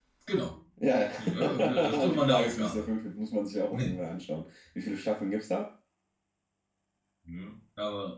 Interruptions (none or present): present